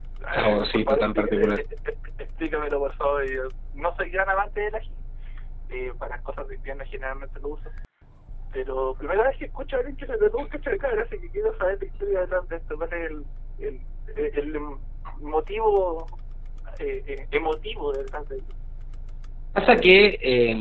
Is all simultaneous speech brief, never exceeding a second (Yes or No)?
No